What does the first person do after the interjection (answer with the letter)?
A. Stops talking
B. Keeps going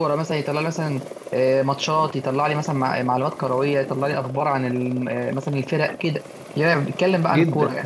A